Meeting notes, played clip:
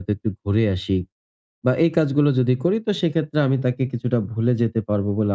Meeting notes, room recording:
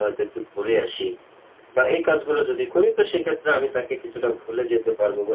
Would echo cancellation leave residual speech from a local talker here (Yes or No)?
No